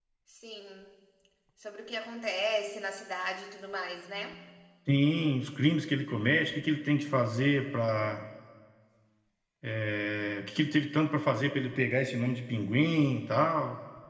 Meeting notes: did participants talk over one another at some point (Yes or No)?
No